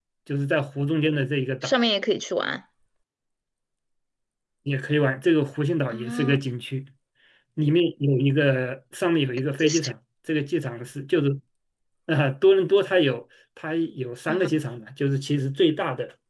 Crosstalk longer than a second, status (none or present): none